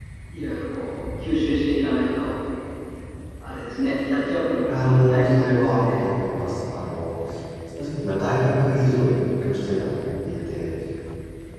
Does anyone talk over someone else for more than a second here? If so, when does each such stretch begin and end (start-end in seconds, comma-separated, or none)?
4.7-6.0